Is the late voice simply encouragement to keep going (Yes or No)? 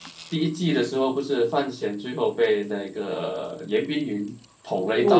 No